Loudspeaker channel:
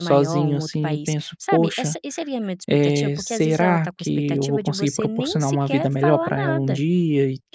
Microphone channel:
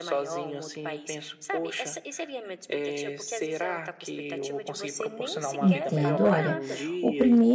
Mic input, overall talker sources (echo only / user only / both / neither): both